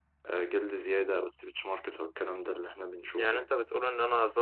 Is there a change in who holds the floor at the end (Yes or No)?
Yes